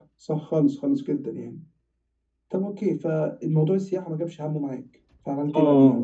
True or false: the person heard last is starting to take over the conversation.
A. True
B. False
A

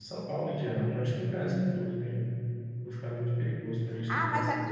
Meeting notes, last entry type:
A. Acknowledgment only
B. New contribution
B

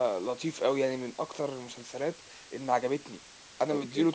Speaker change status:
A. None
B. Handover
A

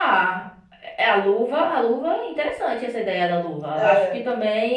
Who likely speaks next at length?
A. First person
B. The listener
A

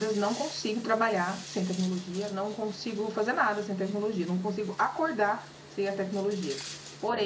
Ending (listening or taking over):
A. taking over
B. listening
B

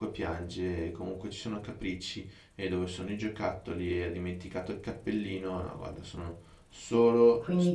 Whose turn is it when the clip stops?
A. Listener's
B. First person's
A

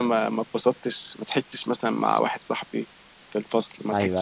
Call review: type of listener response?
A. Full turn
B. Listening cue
B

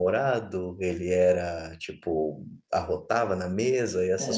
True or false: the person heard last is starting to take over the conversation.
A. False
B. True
B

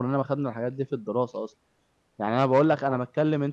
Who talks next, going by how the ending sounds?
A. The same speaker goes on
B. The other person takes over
A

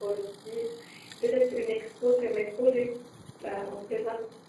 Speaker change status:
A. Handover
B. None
A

